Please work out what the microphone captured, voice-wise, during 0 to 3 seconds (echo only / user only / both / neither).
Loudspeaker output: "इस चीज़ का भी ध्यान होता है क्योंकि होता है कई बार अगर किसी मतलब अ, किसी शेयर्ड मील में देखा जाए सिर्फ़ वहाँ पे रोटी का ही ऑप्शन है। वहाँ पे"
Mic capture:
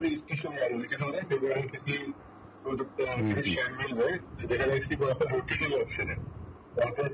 echo only